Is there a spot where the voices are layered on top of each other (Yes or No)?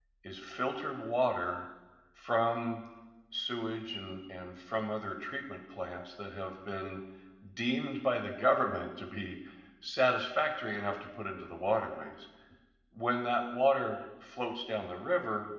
No